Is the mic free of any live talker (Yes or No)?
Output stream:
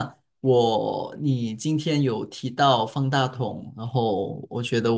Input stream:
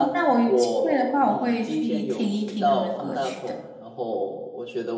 No